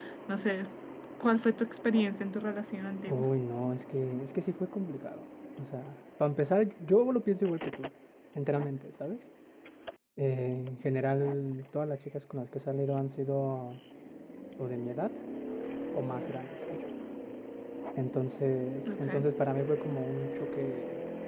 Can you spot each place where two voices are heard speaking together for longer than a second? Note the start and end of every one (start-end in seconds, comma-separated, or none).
none